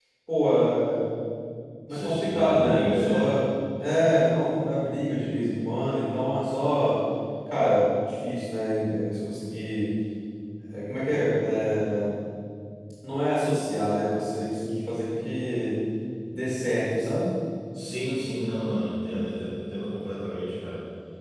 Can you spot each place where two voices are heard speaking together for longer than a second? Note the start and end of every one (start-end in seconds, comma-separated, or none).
1.9-3.3